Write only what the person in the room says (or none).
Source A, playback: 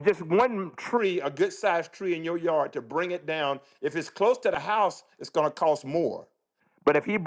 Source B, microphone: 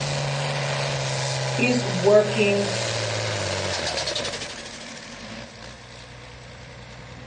is working